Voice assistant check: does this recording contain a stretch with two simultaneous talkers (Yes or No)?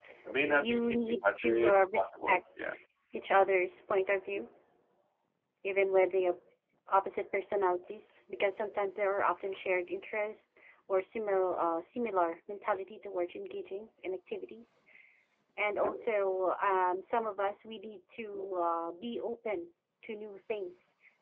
Yes